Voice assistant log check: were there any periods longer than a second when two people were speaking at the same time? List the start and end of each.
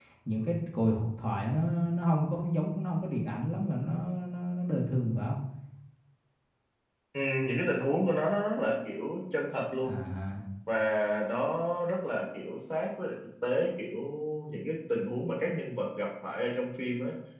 none

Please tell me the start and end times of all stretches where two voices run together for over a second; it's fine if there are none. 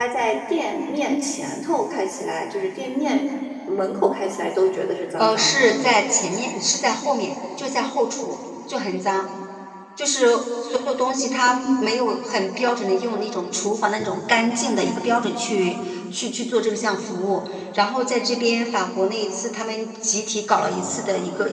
none

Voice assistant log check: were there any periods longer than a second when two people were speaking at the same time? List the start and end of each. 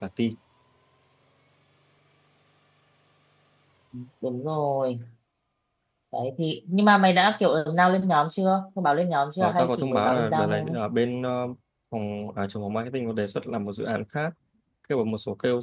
9.4-10.8

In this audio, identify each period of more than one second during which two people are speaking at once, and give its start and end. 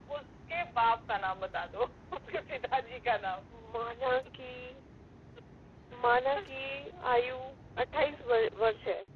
none

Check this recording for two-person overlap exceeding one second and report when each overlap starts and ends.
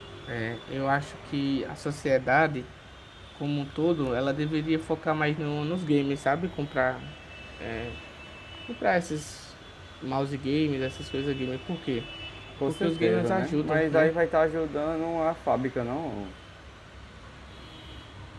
12.7-14.1

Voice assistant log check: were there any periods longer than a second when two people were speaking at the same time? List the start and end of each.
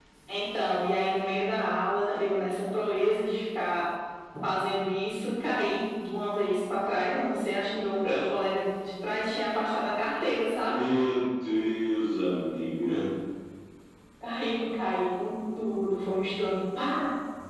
none

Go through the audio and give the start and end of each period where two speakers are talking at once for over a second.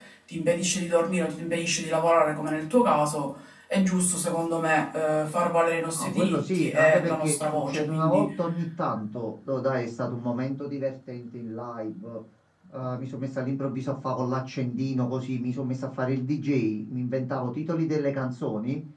6.0-8.3

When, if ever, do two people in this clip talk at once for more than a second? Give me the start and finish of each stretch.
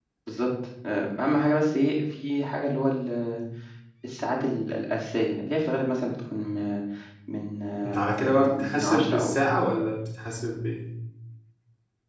7.8-9.3

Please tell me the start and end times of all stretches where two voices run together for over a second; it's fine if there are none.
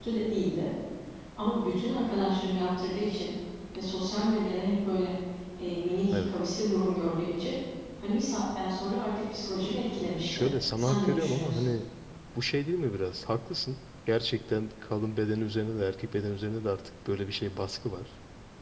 10.2-11.7

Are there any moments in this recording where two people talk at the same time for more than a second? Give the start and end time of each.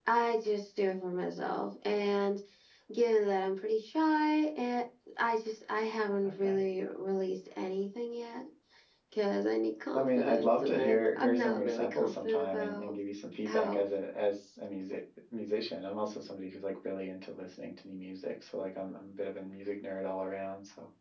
9.9-13.0

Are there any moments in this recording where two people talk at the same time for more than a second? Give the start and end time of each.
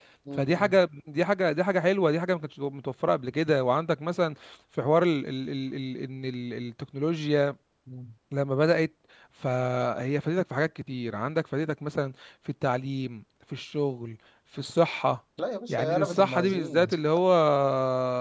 15.7-16.9

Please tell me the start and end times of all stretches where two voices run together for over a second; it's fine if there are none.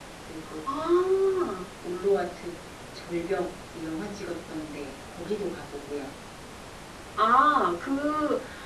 none

